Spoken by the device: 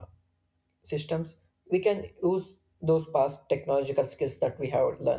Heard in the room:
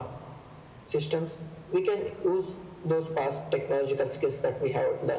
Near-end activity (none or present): none